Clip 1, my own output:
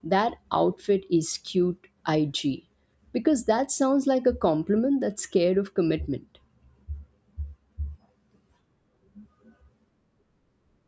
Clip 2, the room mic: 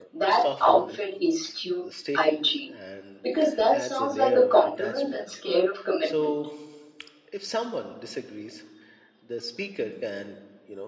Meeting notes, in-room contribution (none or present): present